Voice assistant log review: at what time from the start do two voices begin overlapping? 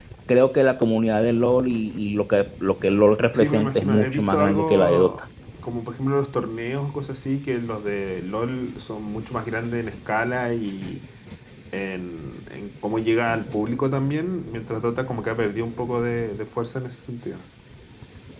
3.3 s

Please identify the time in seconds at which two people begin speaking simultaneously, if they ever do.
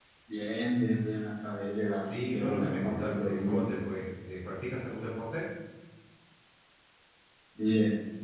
2.0 s

